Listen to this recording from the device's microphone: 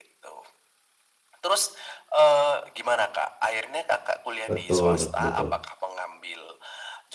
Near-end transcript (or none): Betul betul betul.